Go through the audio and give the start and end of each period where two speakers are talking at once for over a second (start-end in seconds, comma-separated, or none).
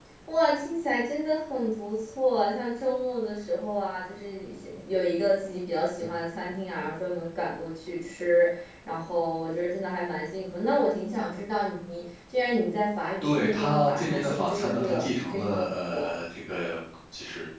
13.2-16.1